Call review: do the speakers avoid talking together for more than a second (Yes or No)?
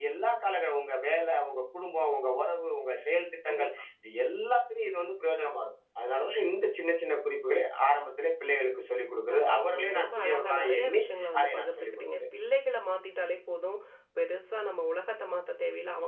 No